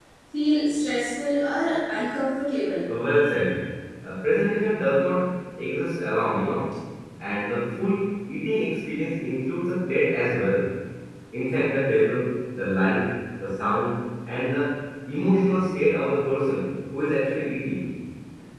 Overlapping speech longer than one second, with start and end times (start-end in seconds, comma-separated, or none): none